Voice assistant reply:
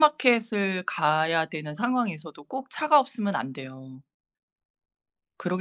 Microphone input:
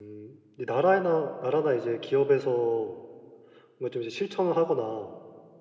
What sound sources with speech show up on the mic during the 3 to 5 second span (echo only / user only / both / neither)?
user only